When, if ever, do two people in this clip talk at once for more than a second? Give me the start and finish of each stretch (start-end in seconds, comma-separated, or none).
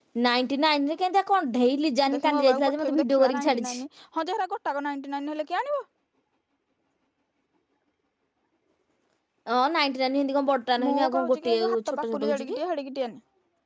2.1-3.8, 10.9-12.6